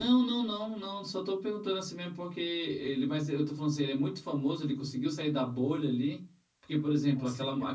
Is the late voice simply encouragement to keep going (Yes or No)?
Yes